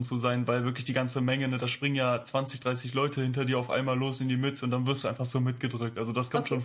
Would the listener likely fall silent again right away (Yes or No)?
No